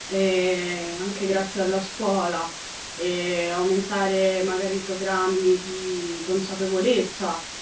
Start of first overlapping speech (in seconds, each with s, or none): none